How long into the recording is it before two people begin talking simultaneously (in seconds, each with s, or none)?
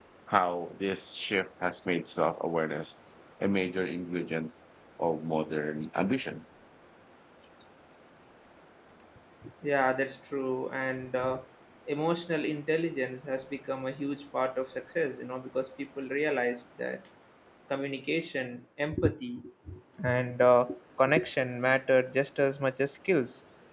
none